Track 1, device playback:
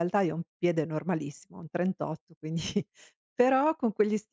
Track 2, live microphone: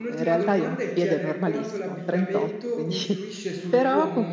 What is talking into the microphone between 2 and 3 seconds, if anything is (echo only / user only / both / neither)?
both